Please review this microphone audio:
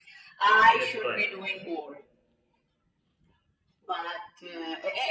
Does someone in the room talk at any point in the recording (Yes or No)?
Yes